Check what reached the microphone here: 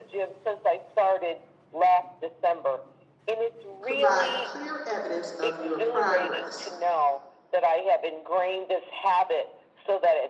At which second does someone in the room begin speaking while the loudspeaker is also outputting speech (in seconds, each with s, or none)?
3.8 s